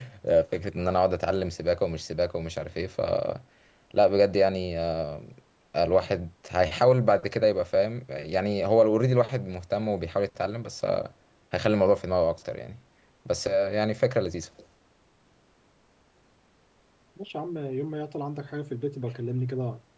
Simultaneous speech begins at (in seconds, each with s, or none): none